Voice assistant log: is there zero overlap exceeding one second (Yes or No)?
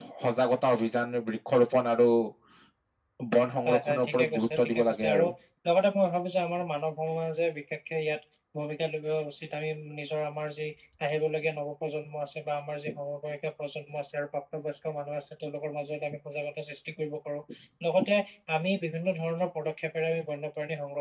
No